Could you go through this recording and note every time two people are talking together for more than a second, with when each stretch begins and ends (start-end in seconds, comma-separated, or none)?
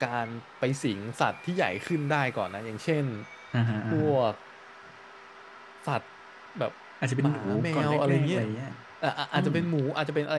7.2-8.4